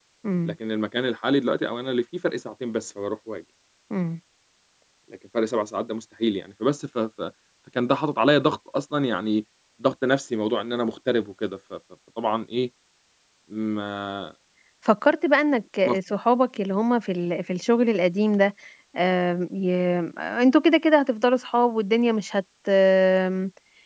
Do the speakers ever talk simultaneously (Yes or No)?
No